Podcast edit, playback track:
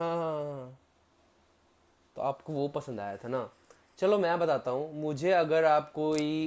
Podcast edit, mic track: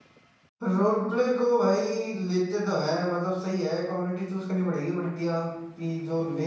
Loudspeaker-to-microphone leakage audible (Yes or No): No